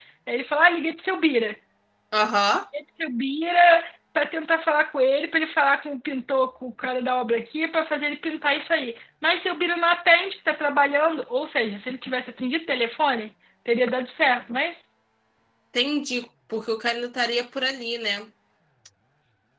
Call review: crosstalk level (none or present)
none